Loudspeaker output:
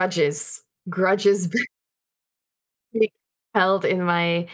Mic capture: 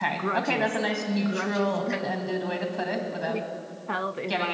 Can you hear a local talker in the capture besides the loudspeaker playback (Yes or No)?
Yes